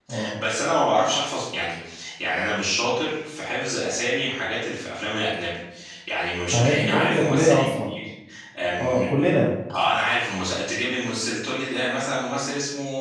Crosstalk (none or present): present